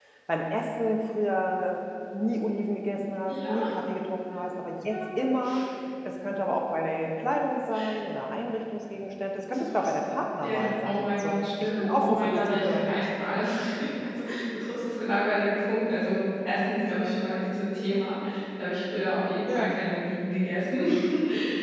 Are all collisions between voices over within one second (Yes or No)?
No